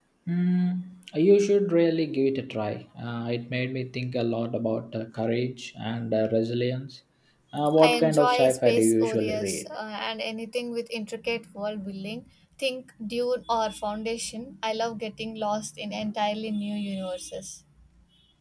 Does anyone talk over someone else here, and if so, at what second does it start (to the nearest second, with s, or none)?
8 s